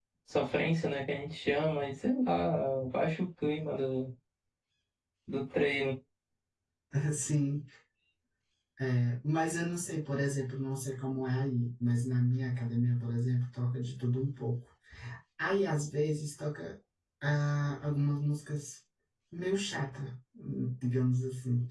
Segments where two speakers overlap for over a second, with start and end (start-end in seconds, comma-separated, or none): none